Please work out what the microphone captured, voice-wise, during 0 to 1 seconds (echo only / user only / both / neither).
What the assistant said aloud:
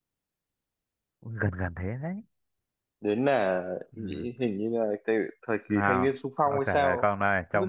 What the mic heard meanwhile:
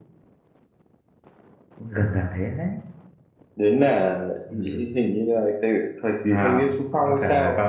neither